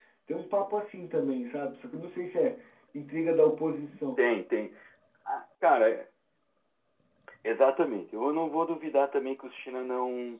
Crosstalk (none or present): none